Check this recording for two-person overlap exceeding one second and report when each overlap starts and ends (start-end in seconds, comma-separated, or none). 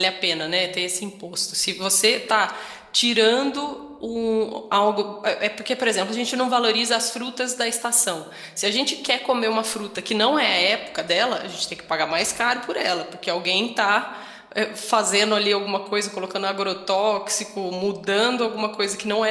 none